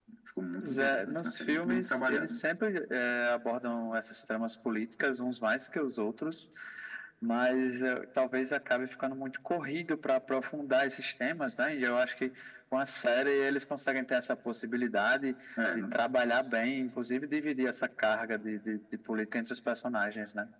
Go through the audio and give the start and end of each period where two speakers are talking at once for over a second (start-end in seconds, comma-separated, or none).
0.6-2.4